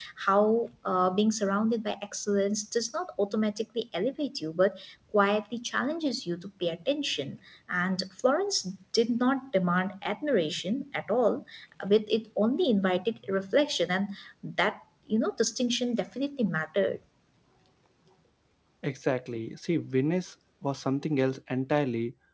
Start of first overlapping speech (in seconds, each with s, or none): none